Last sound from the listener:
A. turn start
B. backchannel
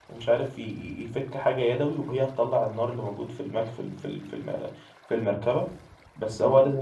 B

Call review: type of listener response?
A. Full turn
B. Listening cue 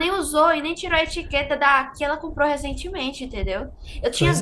B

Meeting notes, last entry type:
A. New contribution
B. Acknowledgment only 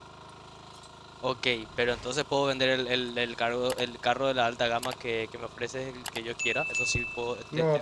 A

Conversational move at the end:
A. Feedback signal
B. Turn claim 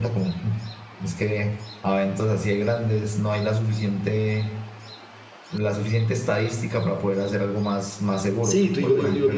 B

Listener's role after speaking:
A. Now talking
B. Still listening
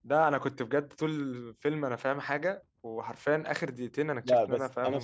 A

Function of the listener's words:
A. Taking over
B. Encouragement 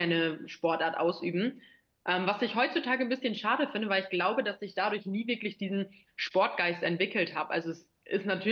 B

